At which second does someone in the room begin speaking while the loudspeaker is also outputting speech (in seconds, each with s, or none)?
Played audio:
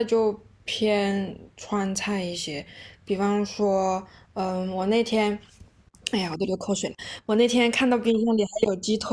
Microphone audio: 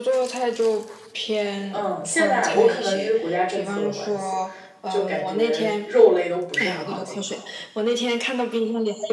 1.7 s